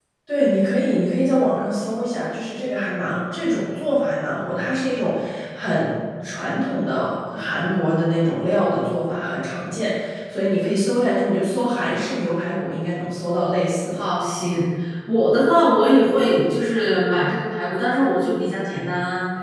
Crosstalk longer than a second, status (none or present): none